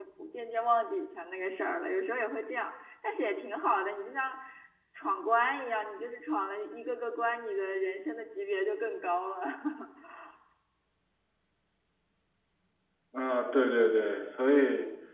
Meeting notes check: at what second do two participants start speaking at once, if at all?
none

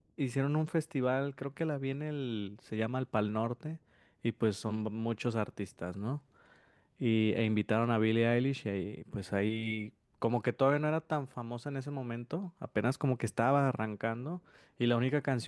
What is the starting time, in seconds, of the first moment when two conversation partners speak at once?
none

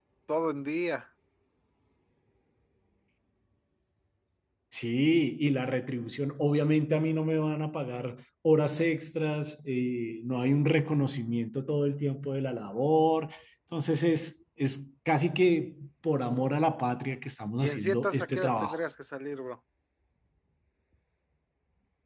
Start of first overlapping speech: 17.6 s

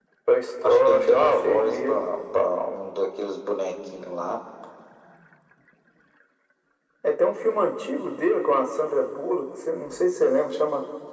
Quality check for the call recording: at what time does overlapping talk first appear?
0.6 s

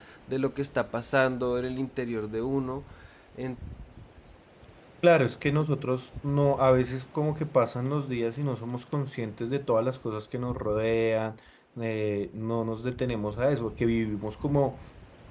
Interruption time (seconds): none

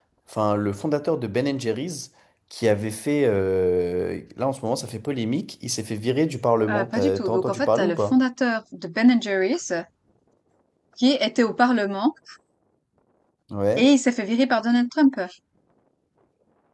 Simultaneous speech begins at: 6.7 s

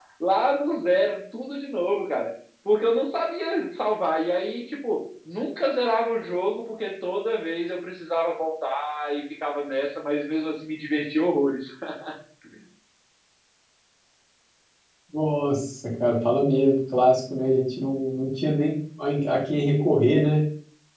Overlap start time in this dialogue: none

